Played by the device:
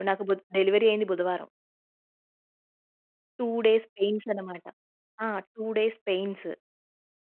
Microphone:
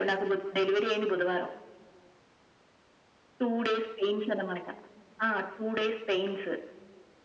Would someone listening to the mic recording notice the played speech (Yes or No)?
Yes